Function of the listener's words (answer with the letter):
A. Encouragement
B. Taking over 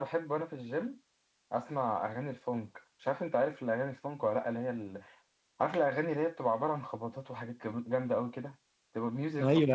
B